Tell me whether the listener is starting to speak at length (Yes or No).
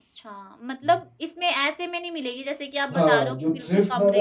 Yes